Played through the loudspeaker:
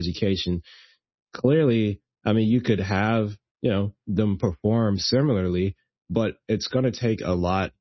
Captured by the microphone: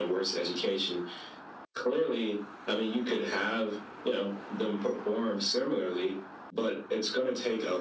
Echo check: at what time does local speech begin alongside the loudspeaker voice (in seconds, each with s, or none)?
none